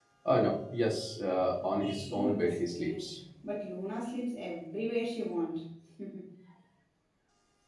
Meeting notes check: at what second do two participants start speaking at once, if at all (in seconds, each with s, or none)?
1.6 s